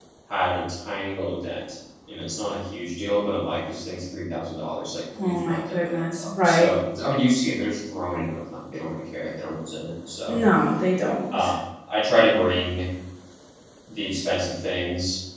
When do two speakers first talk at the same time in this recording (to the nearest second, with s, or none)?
5 s